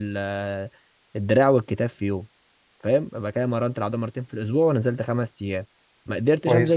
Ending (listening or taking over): listening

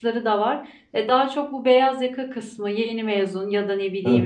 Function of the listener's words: listening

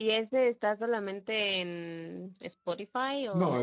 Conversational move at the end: taking over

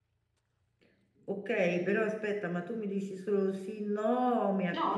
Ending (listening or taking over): taking over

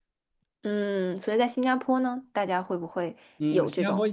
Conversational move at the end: taking over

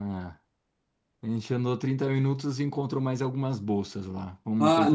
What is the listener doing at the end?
taking over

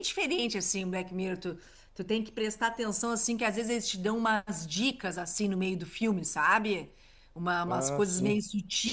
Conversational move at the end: listening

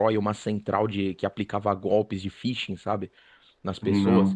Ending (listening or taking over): listening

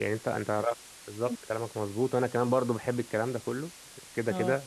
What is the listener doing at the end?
listening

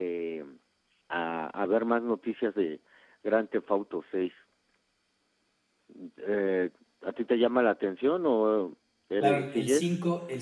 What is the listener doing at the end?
taking over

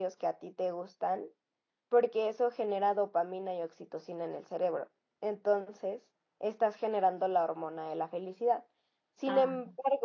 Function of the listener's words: listening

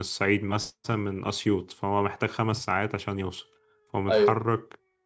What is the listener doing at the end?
listening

